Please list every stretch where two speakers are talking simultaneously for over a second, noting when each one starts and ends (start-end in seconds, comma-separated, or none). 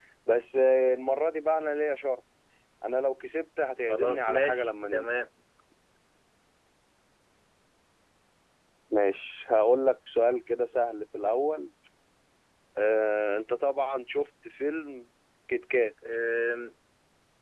3.9-5.2